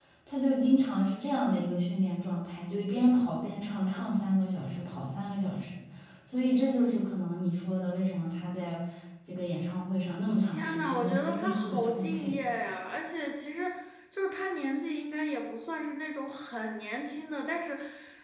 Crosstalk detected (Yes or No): Yes